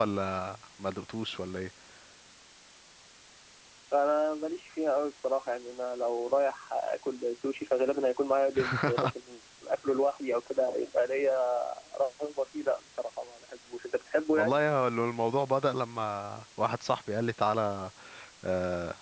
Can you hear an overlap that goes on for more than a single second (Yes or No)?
No